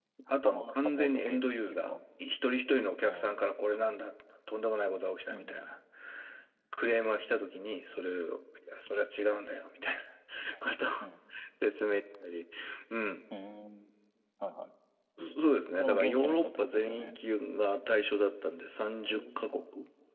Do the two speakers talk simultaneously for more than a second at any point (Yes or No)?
Yes